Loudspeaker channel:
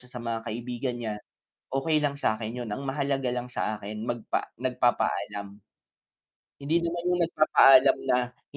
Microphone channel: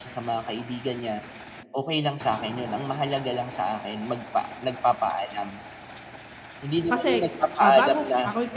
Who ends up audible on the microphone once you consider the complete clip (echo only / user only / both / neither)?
both